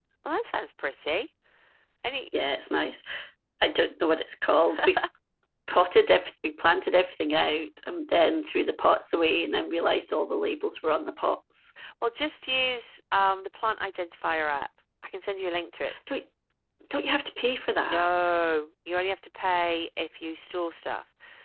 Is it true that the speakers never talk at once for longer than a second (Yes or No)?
Yes